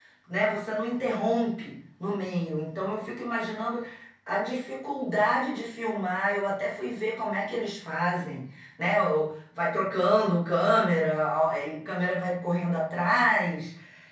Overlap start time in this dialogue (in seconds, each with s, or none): none